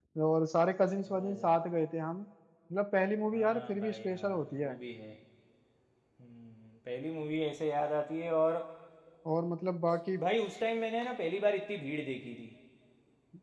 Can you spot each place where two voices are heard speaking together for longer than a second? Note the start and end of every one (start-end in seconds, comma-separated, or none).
3.3-4.8